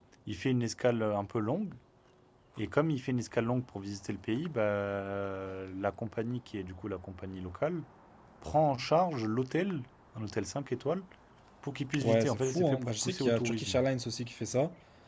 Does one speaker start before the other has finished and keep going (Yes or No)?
Yes